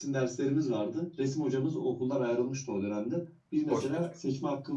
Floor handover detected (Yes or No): No